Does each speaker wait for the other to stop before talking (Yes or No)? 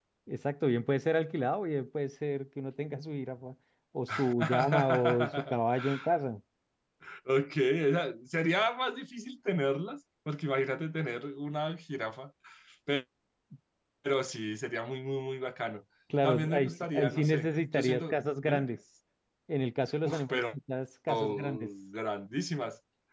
No